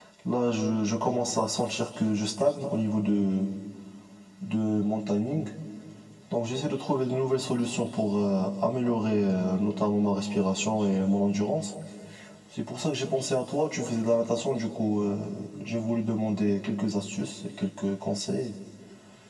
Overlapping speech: No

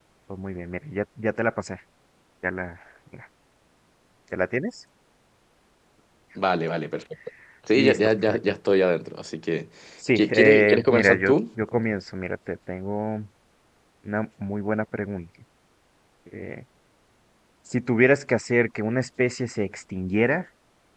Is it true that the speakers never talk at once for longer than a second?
No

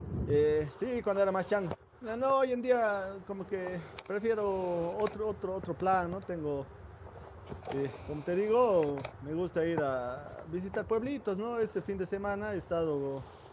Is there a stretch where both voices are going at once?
No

